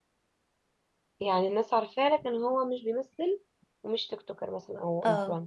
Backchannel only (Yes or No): No